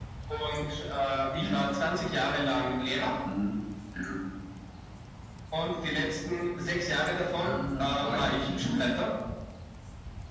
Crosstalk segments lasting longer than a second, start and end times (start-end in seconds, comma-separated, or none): 7.4-8.8